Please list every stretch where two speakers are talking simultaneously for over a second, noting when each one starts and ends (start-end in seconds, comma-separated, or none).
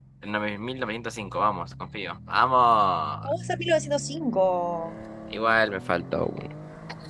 none